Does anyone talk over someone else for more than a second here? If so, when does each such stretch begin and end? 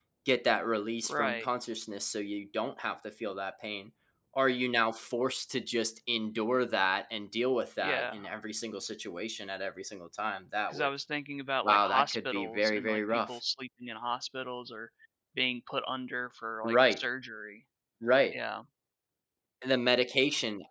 11.6-13.4

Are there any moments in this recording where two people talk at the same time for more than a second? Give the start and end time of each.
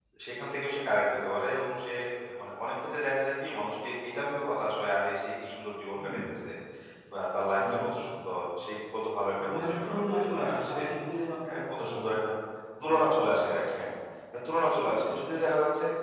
9.4-10.8

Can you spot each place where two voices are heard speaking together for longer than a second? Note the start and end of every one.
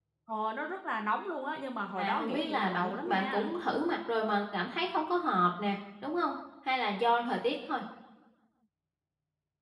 2.0-3.5

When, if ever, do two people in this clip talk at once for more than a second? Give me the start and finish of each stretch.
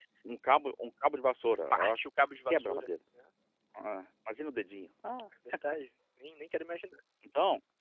none

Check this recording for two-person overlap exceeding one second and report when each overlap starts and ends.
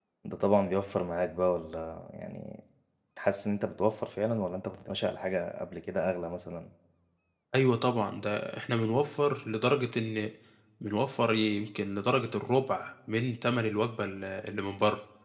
none

